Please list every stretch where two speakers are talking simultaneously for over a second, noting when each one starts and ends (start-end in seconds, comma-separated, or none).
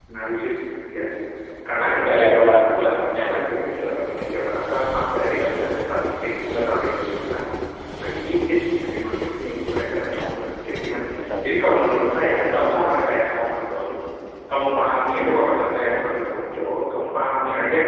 2.2-3.4